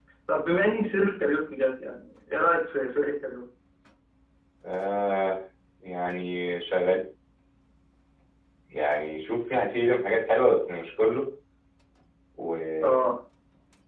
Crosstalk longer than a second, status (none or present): none